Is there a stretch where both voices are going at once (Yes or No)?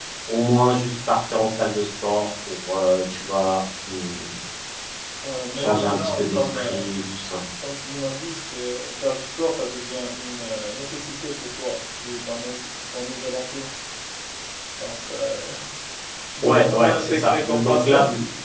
Yes